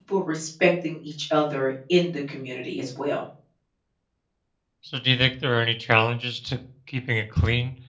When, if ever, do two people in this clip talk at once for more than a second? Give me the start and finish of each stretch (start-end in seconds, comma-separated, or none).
none